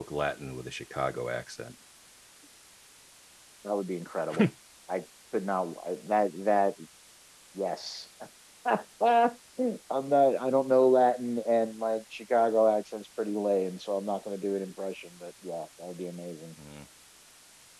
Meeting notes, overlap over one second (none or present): none